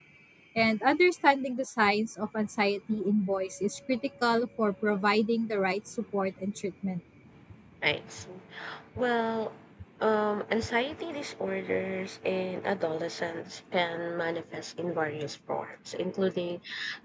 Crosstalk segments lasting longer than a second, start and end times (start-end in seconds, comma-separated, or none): none